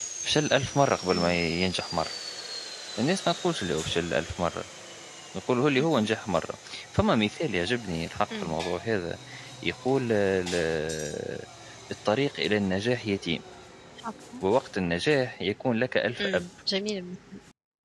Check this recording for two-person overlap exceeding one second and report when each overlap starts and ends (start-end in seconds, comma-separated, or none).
none